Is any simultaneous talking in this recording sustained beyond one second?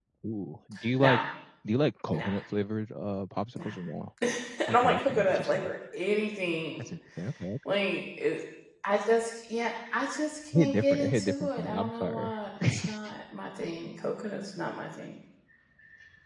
Yes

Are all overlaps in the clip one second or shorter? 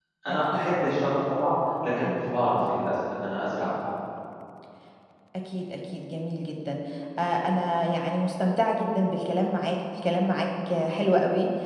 Yes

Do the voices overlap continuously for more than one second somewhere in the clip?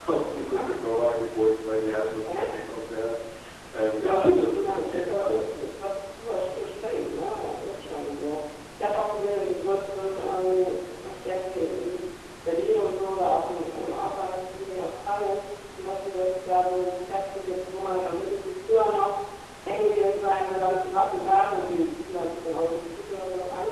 Yes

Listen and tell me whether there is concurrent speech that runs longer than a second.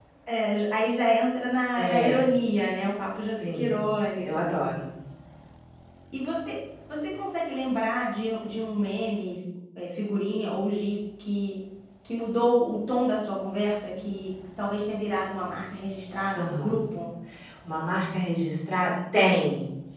No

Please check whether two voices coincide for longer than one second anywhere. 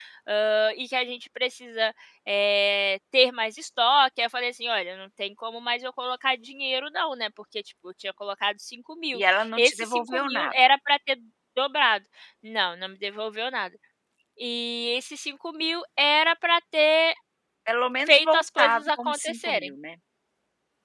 Yes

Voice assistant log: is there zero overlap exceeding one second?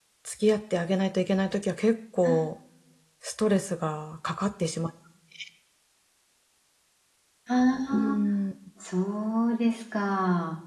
Yes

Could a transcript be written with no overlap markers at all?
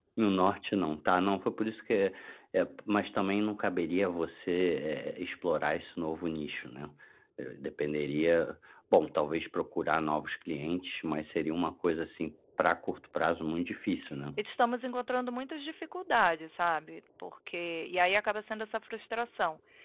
Yes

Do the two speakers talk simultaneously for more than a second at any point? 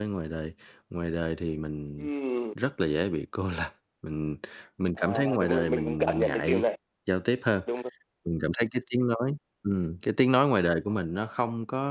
Yes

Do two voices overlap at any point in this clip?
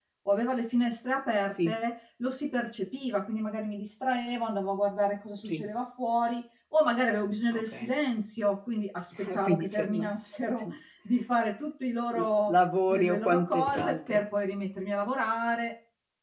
Yes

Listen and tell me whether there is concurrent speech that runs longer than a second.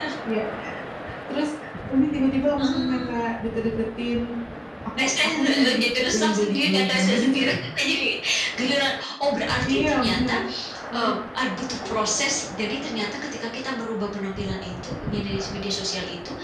Yes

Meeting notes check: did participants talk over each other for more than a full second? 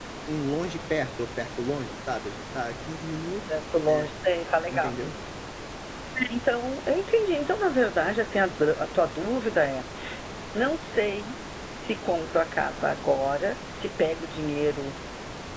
No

